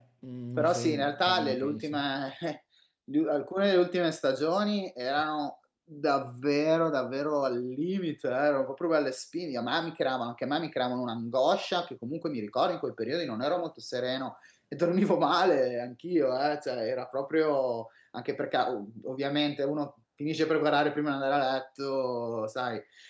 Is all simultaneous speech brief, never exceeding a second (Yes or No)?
No